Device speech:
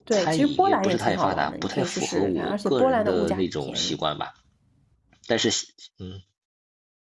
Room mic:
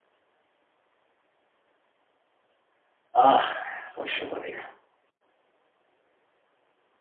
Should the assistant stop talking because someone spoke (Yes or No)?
Yes